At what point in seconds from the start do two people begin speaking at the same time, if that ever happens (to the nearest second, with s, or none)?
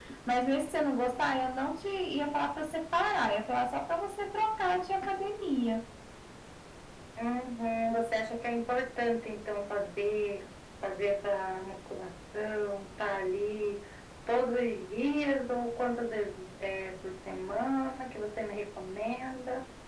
none